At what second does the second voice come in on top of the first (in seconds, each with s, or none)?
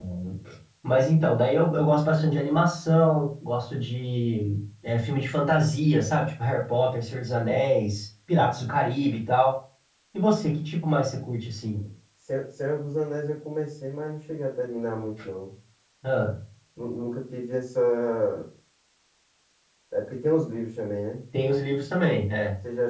none